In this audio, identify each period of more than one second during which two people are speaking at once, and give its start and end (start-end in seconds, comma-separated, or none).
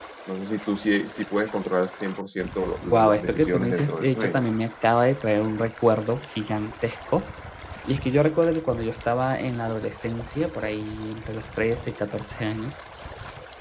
2.9-4.4